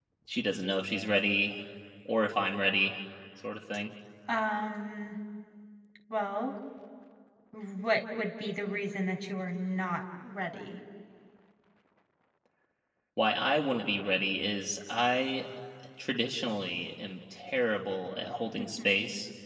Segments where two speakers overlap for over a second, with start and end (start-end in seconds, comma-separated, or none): none